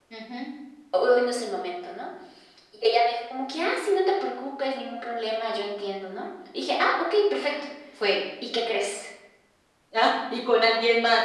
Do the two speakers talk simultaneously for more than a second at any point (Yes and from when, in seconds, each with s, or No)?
No